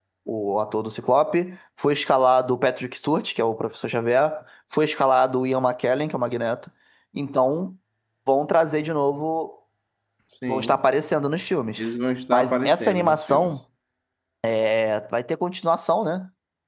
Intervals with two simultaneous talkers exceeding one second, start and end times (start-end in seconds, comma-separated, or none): 12.3-13.5